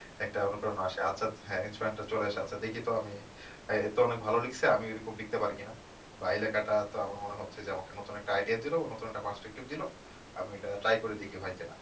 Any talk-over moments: No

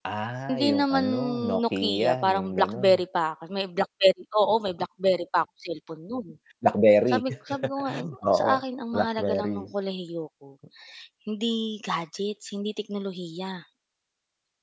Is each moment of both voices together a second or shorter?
No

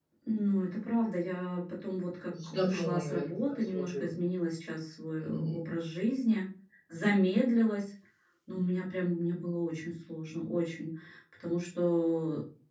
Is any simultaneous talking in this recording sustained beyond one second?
Yes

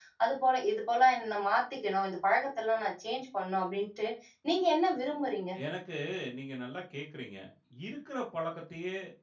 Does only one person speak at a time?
Yes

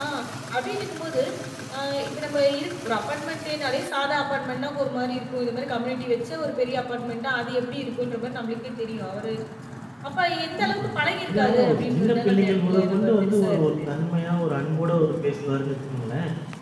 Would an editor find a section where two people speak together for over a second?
Yes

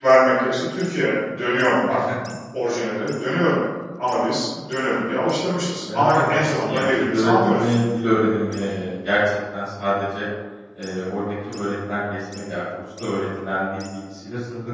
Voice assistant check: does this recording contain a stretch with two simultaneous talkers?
Yes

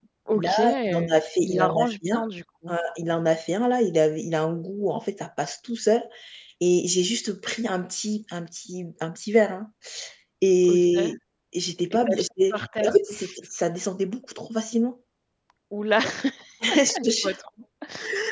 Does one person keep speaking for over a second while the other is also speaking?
Yes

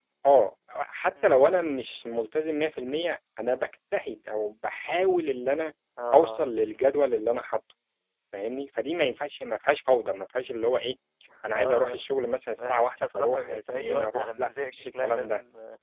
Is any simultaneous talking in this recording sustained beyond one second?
Yes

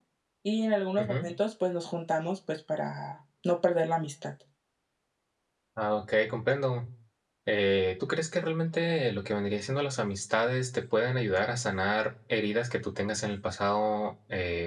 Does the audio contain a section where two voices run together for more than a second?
No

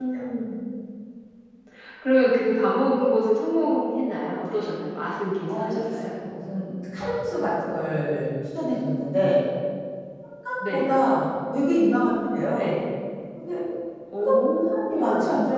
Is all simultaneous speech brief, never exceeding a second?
Yes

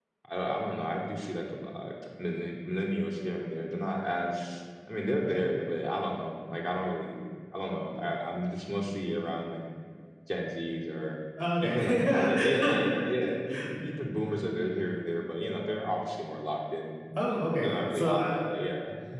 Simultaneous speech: Yes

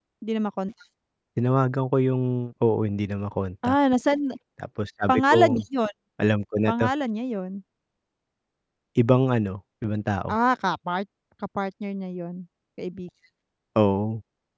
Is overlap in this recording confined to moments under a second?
Yes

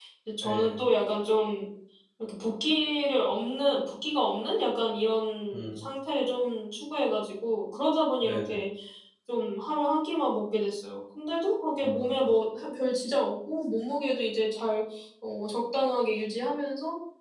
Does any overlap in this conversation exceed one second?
No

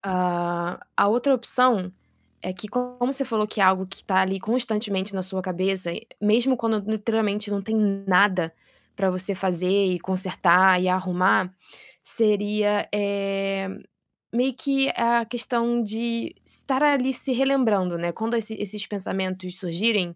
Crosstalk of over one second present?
No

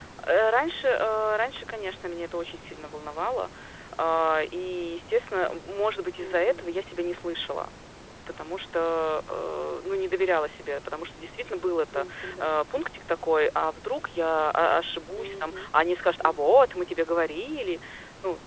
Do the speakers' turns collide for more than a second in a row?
No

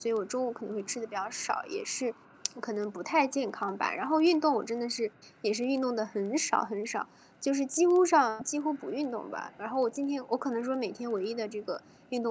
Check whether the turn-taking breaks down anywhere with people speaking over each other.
No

